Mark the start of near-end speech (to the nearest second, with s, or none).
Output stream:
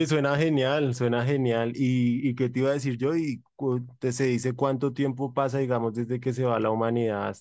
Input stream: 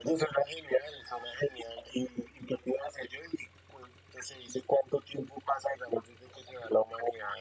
none